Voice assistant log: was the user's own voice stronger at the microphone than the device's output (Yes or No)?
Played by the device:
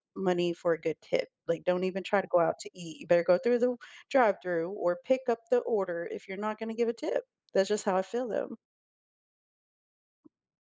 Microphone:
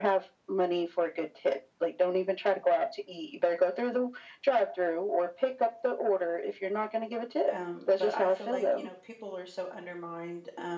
No